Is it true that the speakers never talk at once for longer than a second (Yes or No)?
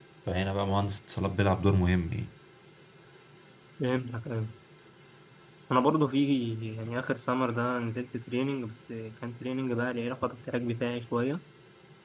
Yes